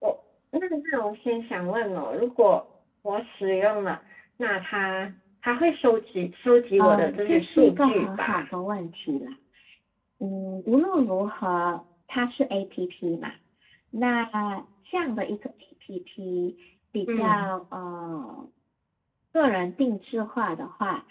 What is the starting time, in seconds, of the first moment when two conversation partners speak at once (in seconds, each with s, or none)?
6.8 s